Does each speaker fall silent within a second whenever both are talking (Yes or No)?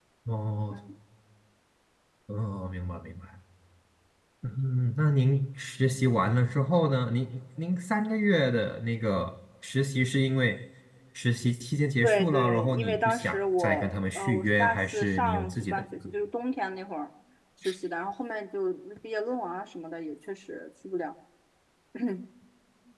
No